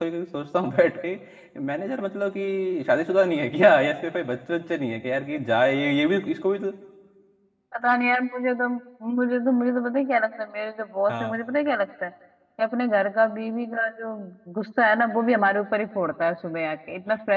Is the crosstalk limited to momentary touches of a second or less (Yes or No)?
Yes